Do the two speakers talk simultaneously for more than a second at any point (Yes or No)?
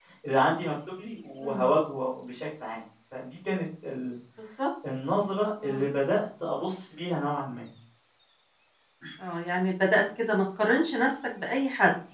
No